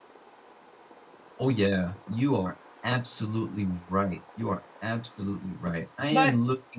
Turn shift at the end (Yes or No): No